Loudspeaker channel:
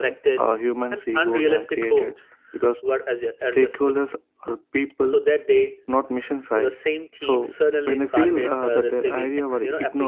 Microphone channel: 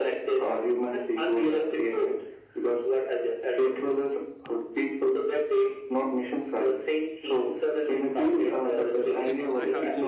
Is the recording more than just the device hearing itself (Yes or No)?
Yes